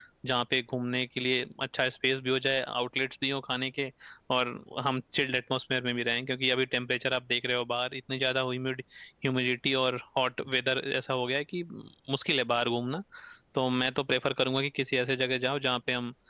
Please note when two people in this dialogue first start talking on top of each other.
none

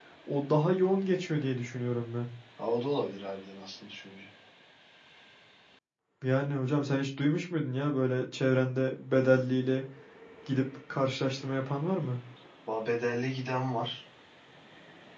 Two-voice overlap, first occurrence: none

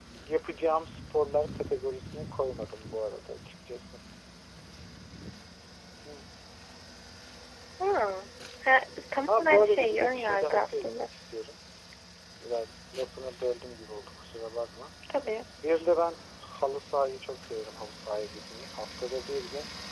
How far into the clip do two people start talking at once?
9.3 s

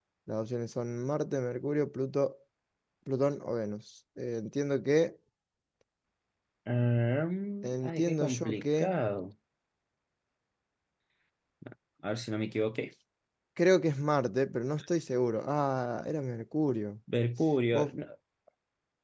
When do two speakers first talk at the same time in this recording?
7.6 s

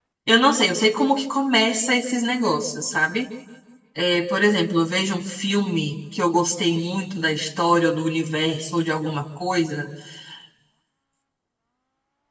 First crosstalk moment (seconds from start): none

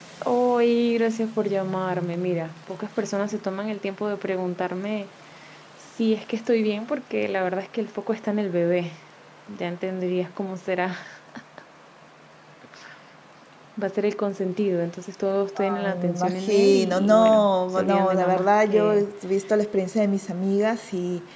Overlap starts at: 15.6 s

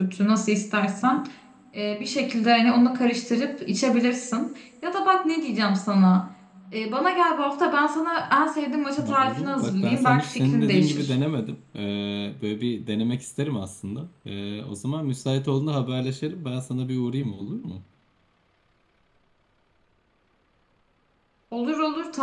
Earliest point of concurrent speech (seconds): 9.0 s

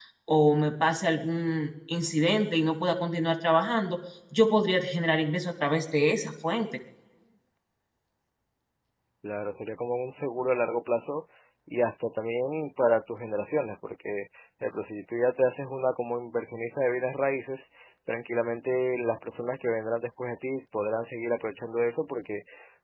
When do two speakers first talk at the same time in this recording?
none

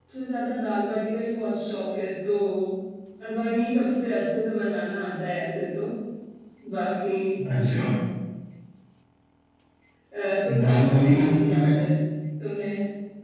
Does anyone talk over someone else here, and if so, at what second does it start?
10.6 s

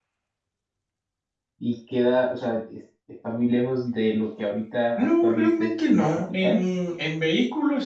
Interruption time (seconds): 5.0 s

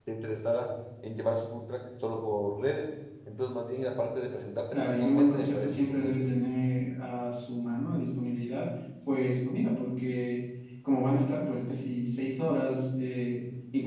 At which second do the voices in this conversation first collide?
4.7 s

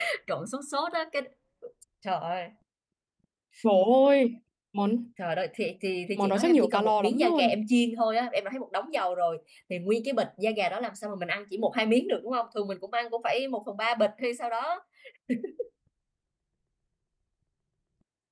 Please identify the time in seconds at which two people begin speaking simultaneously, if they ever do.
6.2 s

